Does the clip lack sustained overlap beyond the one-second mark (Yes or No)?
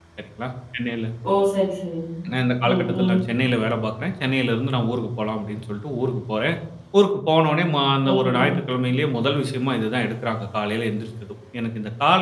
Yes